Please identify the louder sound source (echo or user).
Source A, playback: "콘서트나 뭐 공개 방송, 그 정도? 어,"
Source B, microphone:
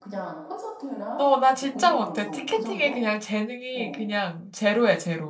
user